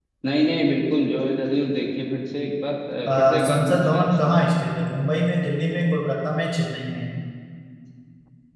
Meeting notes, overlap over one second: present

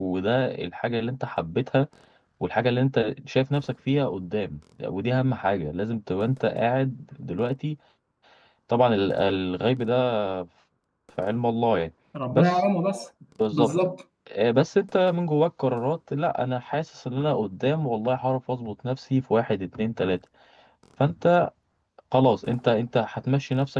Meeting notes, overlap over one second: none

